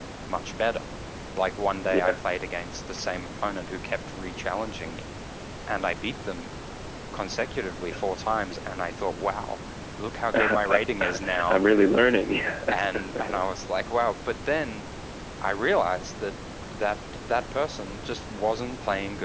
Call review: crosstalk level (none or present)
present